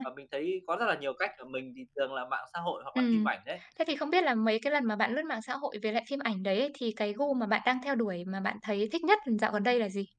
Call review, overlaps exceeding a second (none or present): none